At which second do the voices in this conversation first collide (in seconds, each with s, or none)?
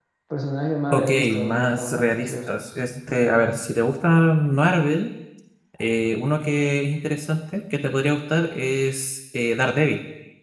0.9 s